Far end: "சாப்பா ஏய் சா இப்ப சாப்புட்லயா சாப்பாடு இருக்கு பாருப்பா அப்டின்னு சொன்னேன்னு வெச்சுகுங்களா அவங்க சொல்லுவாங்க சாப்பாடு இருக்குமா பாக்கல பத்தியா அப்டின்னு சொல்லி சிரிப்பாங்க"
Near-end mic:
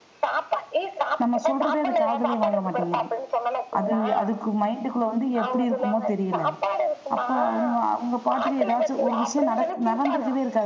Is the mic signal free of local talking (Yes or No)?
No